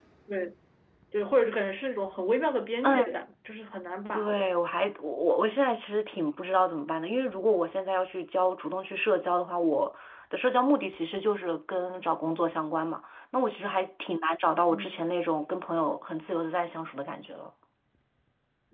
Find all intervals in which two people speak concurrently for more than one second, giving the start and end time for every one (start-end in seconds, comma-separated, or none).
none